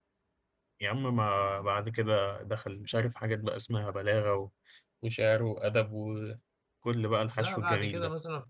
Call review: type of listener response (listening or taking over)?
taking over